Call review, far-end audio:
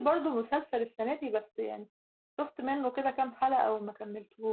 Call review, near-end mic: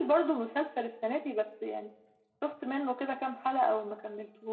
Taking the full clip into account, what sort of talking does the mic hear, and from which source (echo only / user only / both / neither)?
echo only